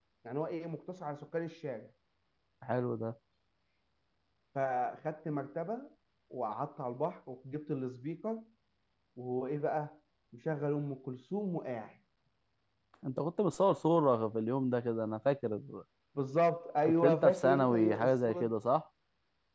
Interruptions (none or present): present